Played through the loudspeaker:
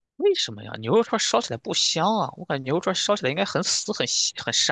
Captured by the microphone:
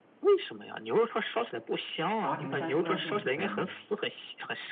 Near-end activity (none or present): present